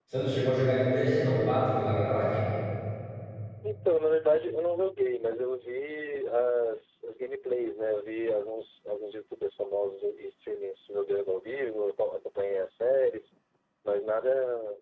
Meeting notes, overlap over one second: none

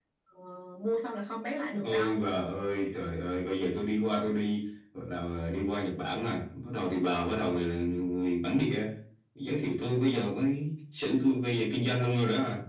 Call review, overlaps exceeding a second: none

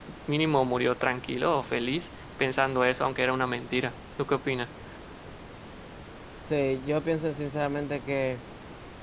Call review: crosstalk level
none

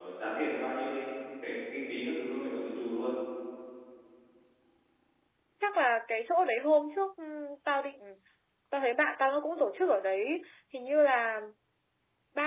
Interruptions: none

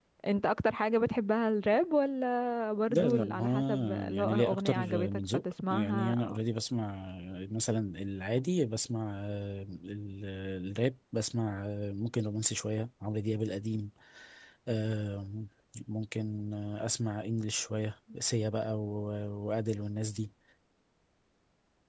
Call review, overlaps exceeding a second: present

